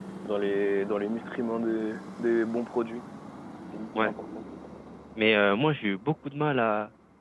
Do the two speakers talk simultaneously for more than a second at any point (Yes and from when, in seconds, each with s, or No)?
No